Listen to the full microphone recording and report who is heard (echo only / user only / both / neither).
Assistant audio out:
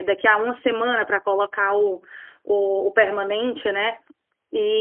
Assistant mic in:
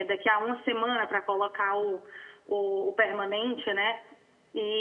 echo only